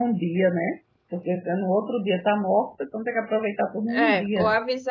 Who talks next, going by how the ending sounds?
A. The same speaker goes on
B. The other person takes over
B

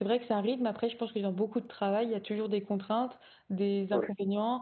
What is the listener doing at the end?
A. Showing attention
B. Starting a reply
A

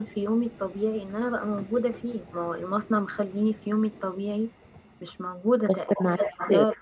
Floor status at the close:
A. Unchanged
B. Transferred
A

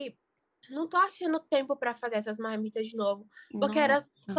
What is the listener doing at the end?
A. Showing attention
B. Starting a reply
A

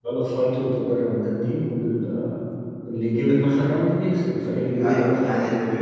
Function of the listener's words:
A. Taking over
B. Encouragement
A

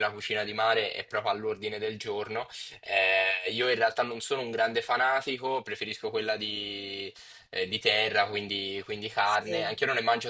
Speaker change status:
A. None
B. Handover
A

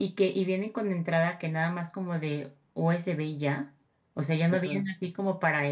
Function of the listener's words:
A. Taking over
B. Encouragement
B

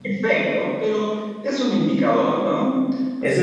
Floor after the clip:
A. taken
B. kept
A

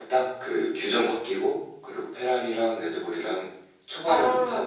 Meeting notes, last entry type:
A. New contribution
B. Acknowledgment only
A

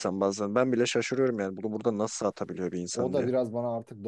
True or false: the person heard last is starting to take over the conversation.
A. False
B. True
B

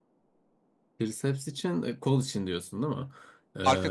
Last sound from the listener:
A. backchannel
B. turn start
A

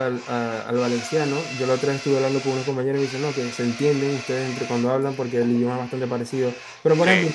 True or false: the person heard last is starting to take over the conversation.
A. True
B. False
B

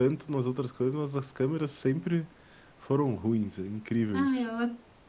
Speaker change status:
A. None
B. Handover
B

